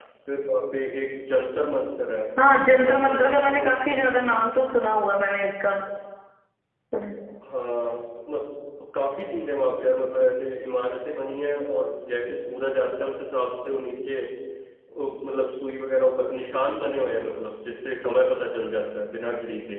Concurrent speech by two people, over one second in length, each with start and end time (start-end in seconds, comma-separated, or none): 2.8-4.1